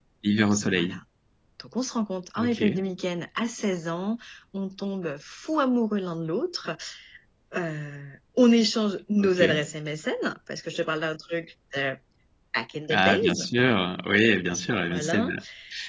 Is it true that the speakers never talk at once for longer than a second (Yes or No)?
Yes